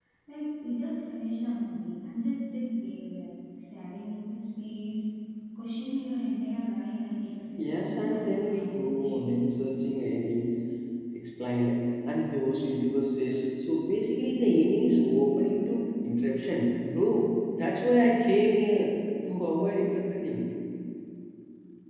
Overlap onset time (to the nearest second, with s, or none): 8 s